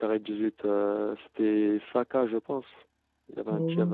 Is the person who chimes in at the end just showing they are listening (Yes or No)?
No